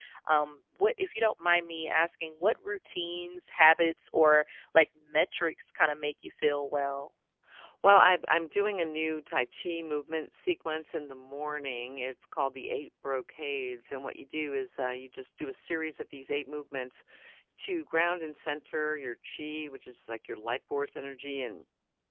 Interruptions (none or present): none